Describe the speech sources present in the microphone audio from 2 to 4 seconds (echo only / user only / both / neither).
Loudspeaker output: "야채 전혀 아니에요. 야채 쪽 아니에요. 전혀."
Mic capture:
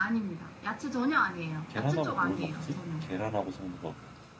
both